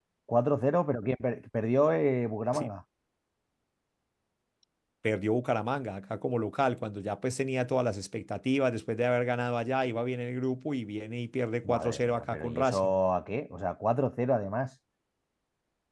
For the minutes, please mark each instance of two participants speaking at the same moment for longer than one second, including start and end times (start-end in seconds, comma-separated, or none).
11.6-12.9